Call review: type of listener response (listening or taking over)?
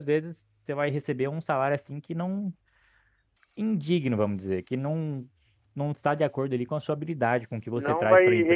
taking over